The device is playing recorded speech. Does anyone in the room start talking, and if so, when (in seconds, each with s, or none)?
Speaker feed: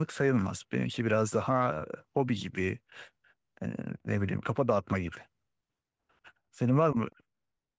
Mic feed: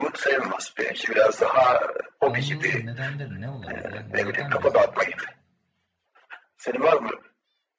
2.3 s